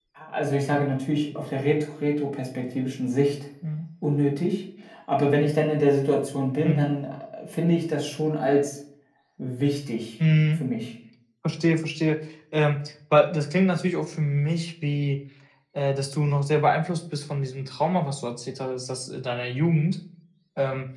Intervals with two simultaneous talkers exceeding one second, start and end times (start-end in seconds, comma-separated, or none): none